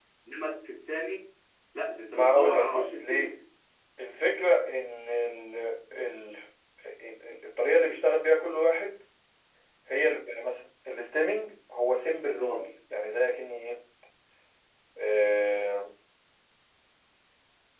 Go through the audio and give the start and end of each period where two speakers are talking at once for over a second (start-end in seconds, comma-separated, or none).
2.1-3.4